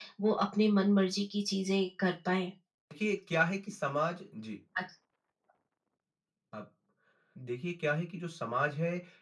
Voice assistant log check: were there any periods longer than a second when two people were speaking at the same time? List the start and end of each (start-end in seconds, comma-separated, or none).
none